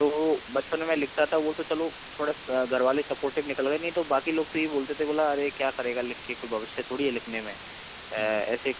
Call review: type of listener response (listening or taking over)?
listening